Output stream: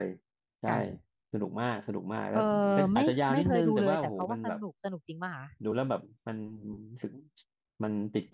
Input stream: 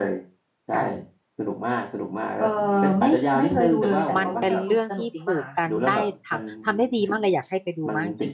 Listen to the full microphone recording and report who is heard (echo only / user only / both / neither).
both